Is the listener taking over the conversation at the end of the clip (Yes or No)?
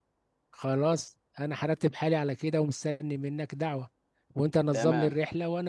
No